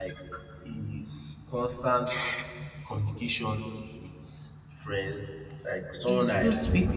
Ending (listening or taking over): taking over